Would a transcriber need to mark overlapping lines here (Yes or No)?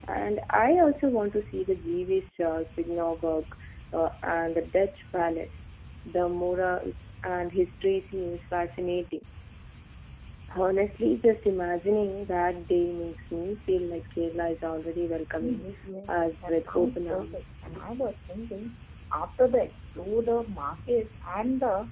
Yes